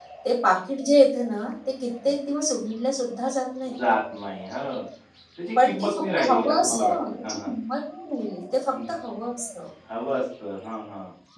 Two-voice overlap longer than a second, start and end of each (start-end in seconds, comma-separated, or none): 5.6-7.5